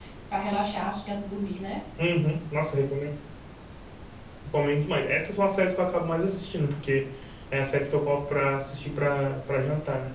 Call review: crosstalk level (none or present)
none